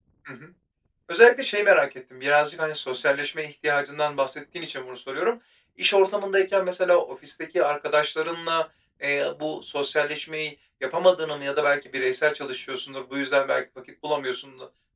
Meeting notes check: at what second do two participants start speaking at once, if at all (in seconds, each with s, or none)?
none